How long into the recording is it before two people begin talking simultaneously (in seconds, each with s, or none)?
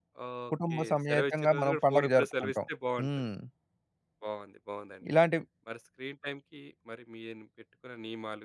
0.7 s